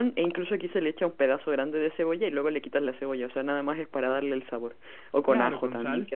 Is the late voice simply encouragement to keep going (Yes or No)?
No